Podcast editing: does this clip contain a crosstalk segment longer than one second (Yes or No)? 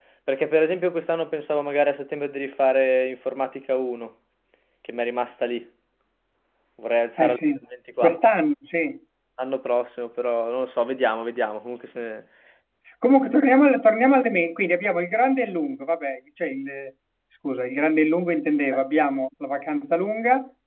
No